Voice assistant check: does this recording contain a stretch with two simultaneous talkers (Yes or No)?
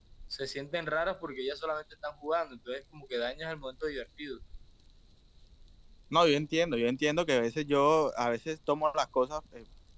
No